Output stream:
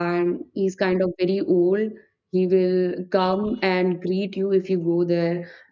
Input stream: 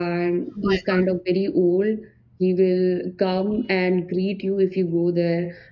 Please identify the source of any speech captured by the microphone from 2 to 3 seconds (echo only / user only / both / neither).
echo only